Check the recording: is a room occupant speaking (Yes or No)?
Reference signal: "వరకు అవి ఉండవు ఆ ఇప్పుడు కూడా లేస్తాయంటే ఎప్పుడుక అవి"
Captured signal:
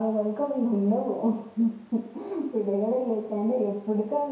No